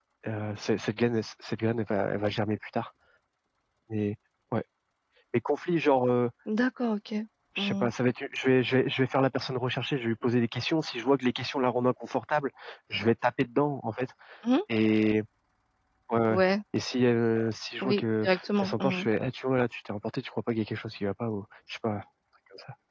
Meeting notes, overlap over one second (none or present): none